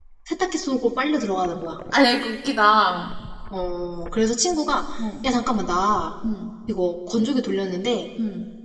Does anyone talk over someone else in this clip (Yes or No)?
No